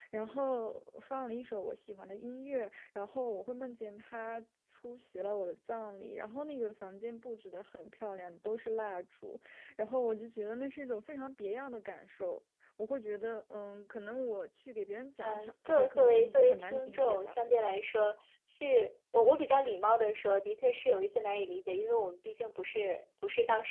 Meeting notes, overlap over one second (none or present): present